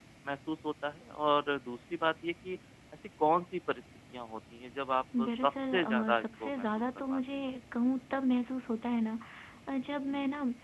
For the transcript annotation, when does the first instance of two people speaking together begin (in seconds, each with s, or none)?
5.1 s